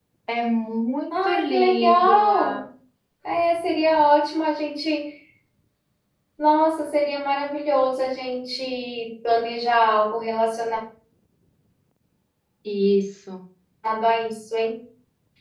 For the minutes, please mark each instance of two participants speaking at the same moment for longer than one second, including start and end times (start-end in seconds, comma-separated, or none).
1.1-2.6